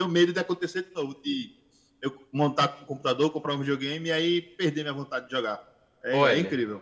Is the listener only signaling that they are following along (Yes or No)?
No